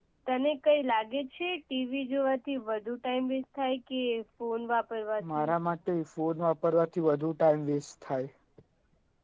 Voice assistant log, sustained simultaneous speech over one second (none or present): none